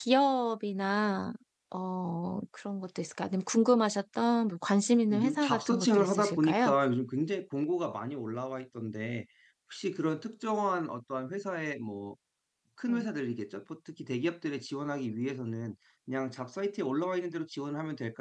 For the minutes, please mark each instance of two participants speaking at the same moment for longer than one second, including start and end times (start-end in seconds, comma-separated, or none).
5.1-6.7